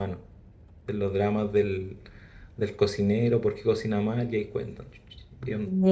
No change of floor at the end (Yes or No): No